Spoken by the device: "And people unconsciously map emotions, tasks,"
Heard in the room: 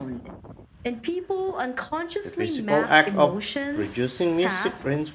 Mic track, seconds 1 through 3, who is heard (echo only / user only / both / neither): both